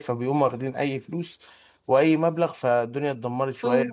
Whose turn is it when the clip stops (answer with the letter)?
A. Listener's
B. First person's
A